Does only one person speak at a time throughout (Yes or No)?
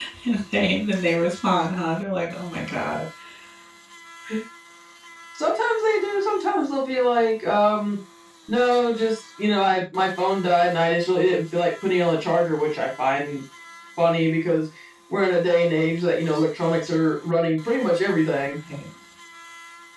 Yes